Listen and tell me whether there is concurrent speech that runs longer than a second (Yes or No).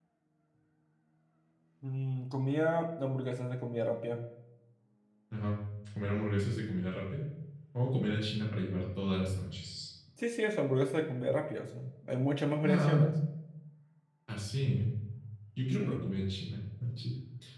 No